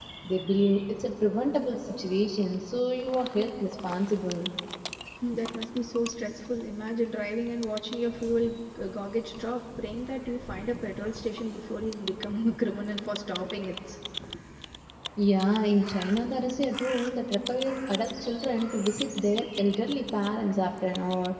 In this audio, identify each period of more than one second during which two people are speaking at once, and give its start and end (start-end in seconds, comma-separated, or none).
none